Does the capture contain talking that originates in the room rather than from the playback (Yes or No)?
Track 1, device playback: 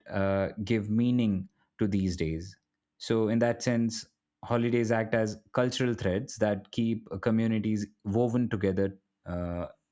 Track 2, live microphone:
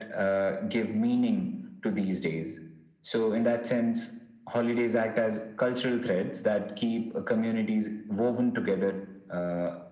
No